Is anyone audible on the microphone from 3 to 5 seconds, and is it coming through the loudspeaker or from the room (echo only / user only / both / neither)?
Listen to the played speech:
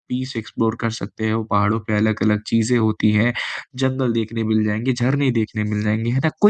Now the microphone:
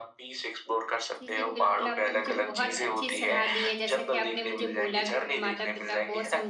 both